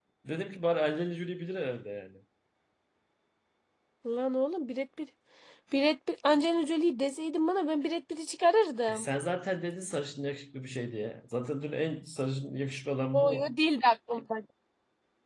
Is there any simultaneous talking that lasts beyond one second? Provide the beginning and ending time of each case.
none

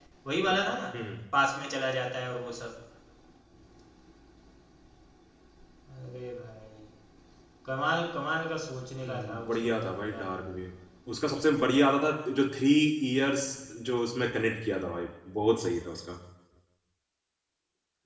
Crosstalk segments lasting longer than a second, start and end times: 9.0-10.3

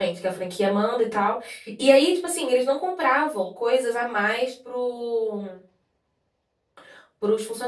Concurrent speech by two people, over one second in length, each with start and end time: none

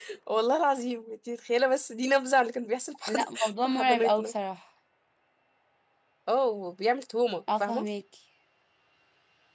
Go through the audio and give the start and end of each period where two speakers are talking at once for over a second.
3.1-4.3

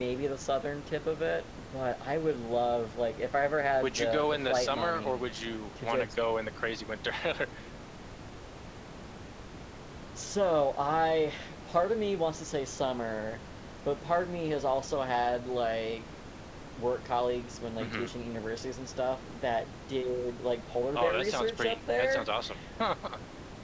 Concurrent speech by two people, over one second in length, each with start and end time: 3.8-5.2, 20.9-22.3

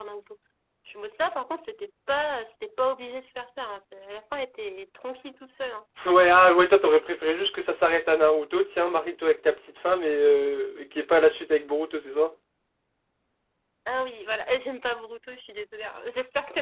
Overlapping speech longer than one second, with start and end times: none

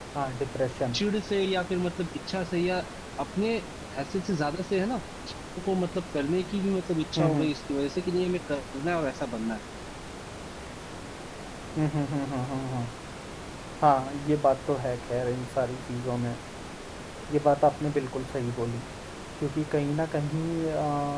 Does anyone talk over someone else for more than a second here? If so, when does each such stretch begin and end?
none

